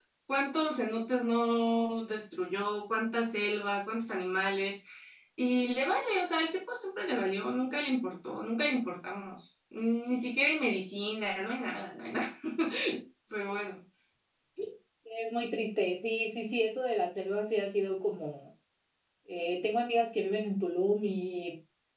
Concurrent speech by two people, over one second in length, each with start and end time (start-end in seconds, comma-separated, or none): none